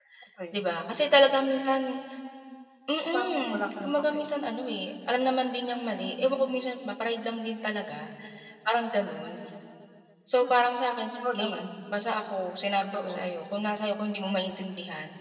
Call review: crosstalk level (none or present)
present